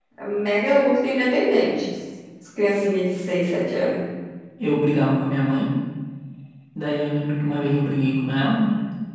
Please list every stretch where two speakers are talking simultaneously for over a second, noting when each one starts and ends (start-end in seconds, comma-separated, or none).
none